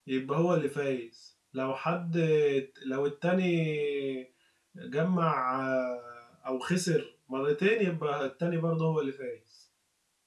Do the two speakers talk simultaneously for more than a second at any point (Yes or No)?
No